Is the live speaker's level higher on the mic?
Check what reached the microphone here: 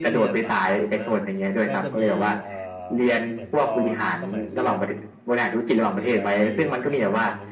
No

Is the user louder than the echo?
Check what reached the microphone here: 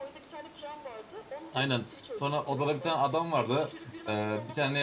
Yes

